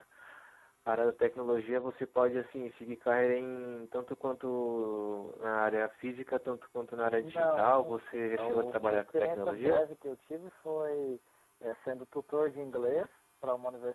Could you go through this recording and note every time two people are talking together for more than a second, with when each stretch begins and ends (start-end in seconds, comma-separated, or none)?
7.2-9.9